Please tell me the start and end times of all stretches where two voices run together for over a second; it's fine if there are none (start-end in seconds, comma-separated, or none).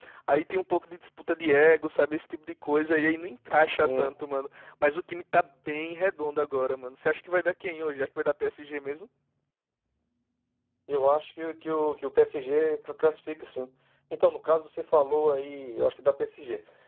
none